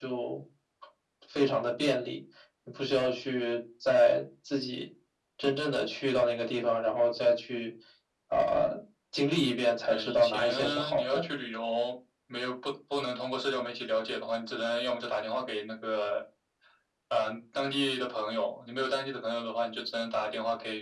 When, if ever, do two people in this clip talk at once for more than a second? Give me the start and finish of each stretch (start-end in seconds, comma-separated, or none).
9.8-11.2